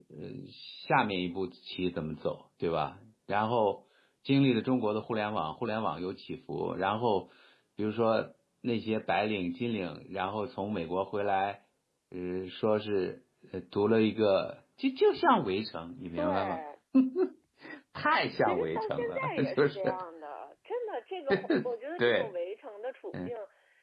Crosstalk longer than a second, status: present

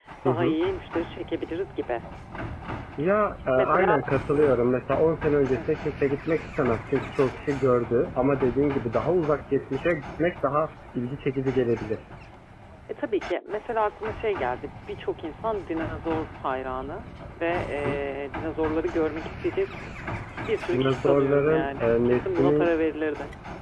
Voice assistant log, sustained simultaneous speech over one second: present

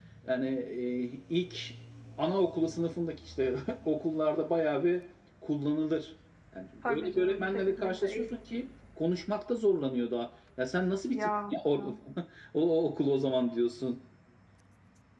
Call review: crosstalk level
present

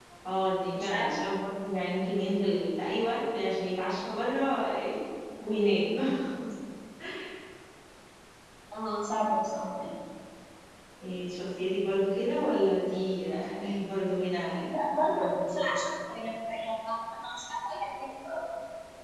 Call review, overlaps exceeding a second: none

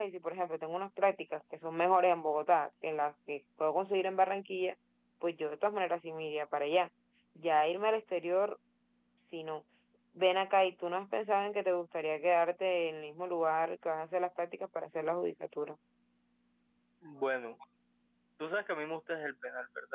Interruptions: none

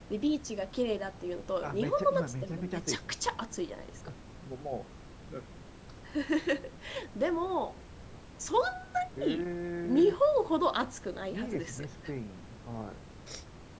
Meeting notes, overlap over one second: present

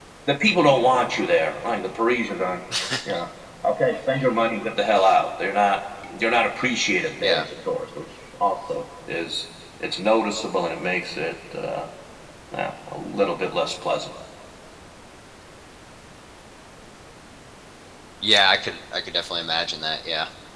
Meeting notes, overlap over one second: none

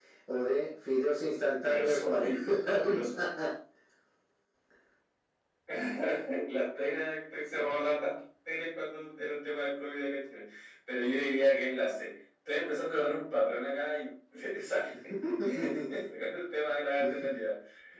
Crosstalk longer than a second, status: present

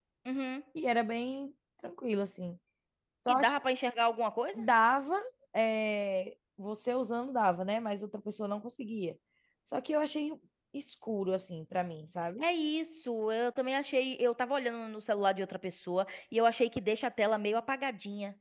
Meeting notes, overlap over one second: none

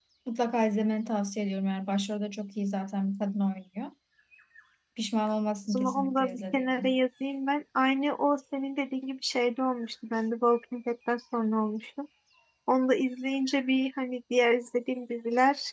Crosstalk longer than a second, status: present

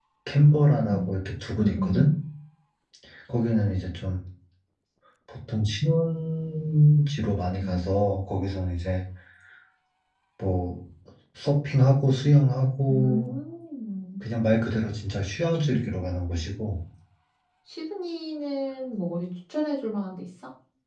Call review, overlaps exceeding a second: none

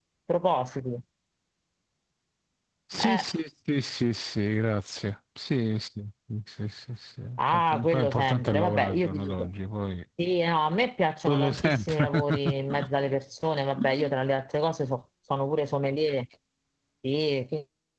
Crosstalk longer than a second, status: present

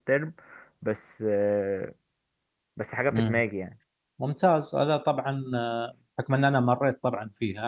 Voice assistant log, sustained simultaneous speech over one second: none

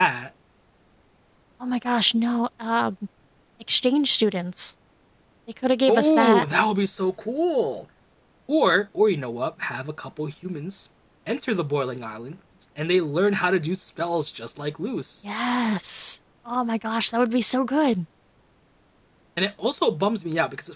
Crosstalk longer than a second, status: none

